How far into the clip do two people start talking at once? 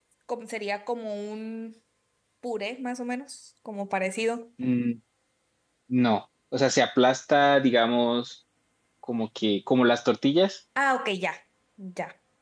none

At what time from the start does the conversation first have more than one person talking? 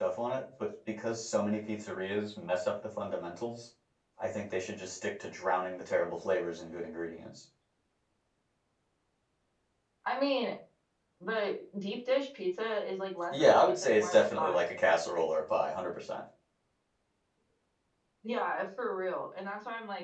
13.3 s

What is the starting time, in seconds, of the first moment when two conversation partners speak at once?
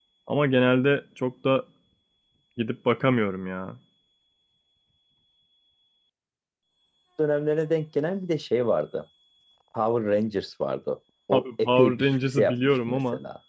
11.3 s

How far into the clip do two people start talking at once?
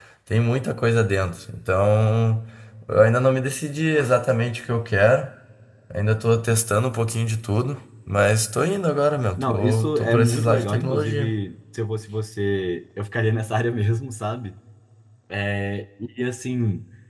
9.3 s

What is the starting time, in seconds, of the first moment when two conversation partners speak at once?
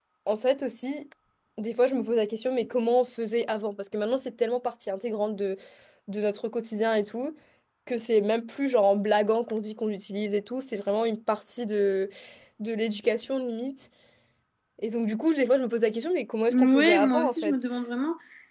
16.5 s

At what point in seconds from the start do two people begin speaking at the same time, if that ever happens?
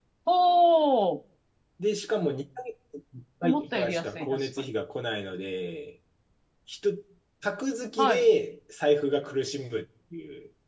3.4 s

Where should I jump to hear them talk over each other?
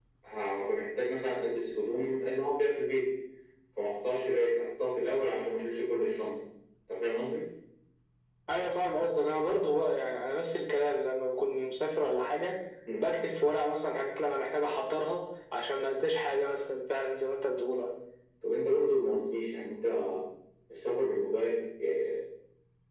none

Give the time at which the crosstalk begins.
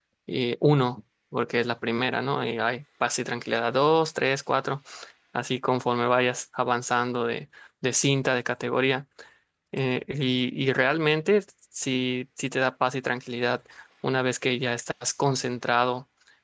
none

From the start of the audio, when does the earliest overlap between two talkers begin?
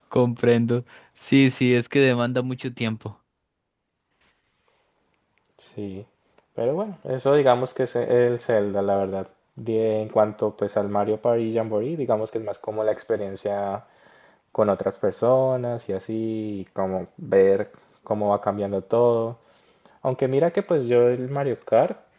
none

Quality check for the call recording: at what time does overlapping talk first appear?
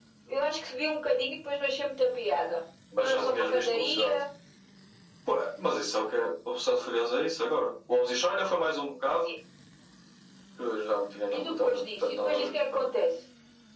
3.0 s

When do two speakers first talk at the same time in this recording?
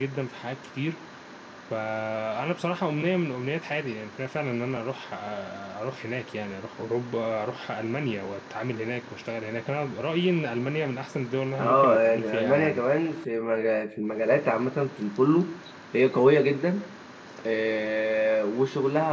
11.6 s

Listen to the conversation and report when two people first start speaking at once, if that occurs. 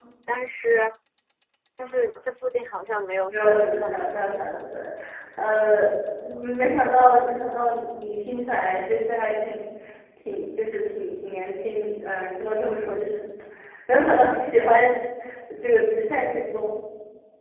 3.3 s

